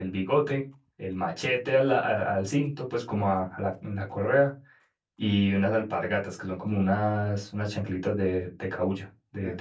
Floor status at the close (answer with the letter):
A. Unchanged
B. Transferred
B